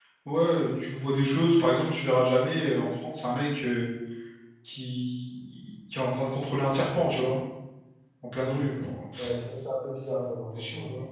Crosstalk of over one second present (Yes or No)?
No